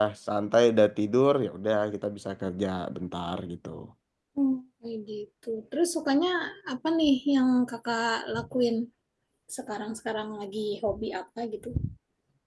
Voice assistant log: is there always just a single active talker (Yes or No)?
Yes